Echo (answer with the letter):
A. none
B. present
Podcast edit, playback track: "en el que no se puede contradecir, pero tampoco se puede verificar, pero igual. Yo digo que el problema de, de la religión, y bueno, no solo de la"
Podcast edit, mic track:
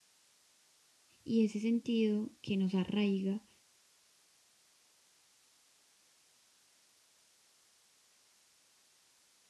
A